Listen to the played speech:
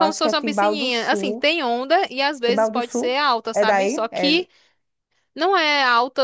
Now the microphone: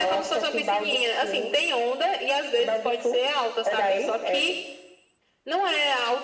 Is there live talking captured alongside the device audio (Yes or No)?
No